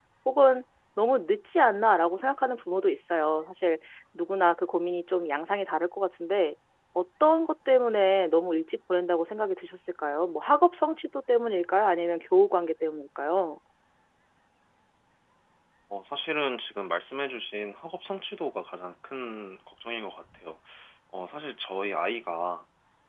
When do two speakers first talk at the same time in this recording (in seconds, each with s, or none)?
none